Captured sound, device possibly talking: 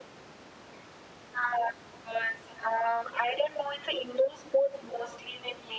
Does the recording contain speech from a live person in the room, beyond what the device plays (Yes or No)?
No